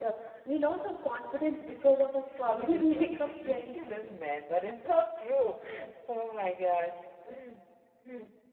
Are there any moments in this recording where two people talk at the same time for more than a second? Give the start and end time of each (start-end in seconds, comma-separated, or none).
2.5-3.9